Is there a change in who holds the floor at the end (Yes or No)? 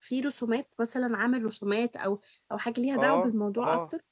Yes